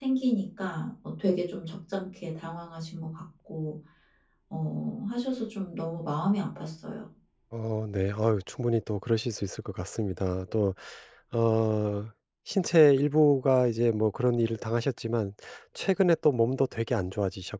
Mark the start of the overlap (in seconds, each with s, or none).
none